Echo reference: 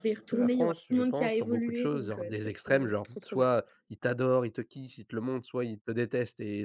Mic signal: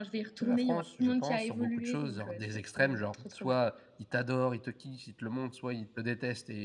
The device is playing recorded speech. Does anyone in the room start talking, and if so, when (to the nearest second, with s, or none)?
none